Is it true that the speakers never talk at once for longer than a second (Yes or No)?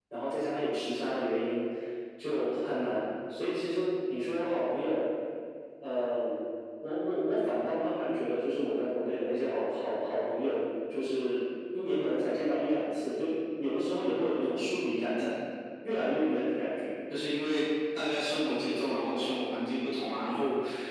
Yes